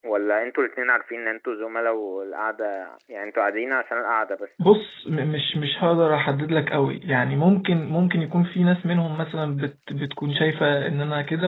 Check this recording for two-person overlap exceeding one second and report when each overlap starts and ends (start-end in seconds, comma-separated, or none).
none